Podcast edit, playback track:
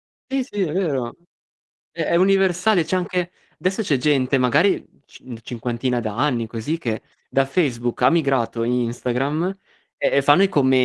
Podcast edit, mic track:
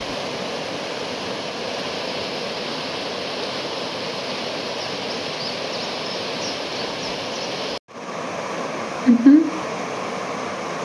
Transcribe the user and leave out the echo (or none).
Mh-mh.